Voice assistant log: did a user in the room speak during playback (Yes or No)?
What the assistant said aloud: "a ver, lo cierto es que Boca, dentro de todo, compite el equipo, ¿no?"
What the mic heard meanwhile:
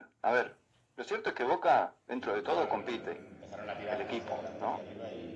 Yes